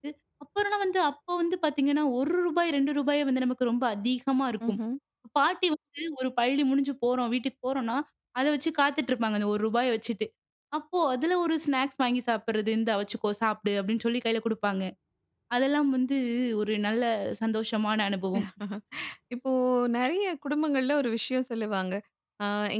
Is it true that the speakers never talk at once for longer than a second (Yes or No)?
Yes